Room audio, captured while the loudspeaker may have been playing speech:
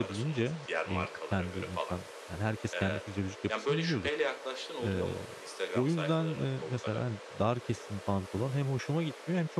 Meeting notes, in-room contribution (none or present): present